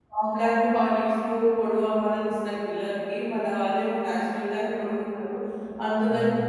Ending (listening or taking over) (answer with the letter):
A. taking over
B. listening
B